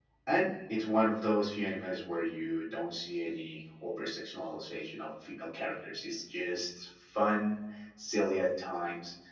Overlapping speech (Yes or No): No